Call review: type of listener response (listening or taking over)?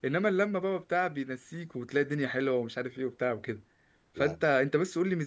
listening